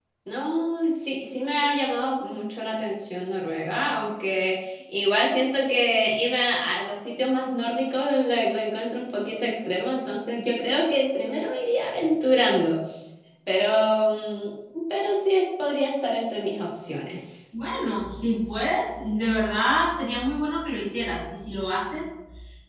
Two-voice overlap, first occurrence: none

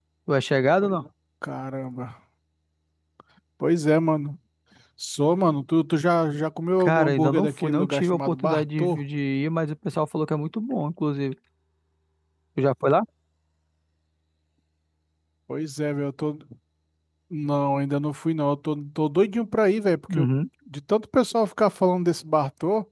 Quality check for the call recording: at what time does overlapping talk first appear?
6.8 s

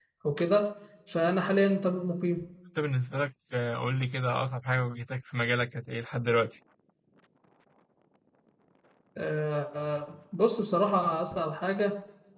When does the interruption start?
none

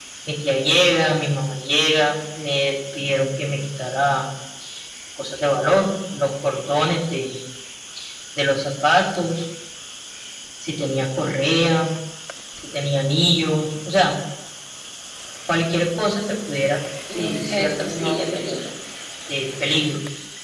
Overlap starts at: 17.1 s

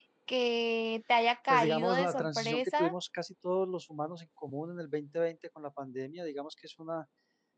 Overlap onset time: 1.5 s

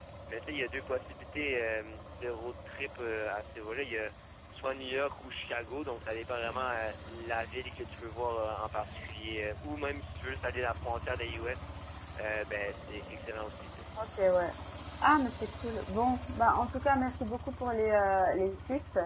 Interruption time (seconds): none

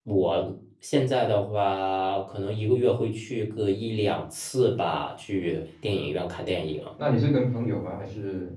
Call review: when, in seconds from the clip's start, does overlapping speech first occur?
none

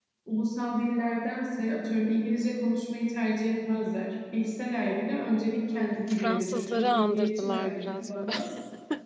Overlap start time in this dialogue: 5.7 s

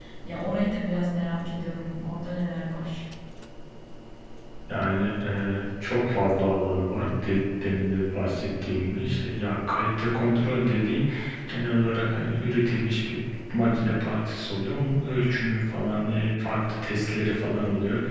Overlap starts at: none

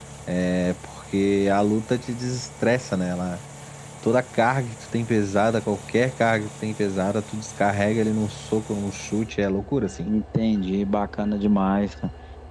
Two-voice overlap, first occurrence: none

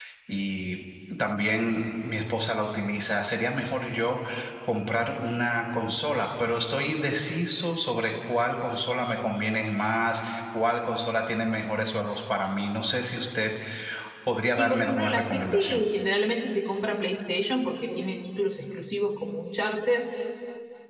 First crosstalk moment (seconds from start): 14.6 s

